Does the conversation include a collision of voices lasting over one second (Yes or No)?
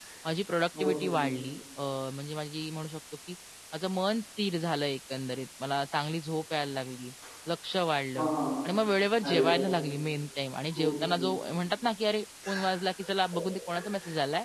No